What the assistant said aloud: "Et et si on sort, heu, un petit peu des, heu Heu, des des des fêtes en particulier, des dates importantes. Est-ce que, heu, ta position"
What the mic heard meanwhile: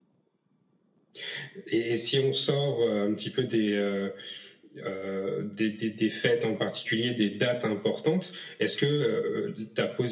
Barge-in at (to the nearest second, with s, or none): none